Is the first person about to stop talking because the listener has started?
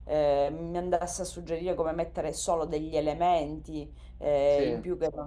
No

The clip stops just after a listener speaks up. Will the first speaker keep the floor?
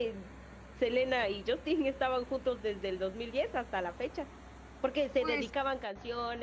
Yes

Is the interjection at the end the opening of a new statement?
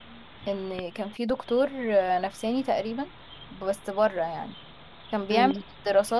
No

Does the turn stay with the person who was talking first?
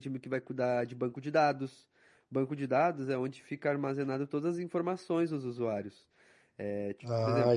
No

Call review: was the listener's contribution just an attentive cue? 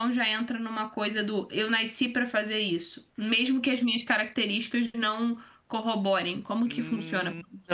No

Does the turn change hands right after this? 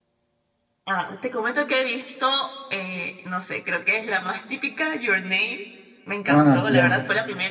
No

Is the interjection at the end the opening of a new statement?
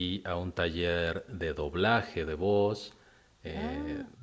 No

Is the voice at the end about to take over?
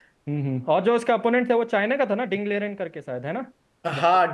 Yes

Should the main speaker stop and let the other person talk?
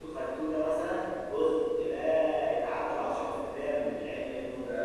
Yes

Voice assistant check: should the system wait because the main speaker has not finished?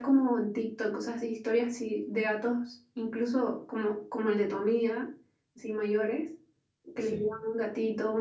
Yes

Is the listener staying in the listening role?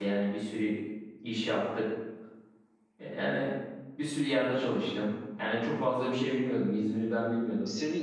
No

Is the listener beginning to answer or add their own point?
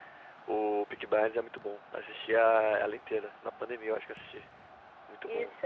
Yes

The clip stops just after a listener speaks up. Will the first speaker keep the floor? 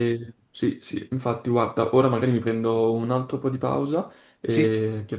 Yes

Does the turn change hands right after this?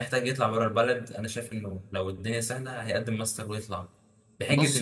No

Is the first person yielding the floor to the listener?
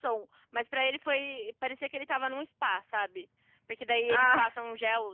No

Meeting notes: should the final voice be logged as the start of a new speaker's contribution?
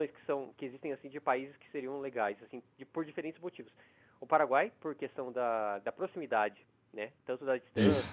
No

